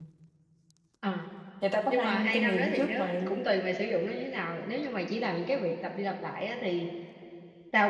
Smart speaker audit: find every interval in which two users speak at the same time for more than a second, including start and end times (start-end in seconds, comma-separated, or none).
1.9-3.3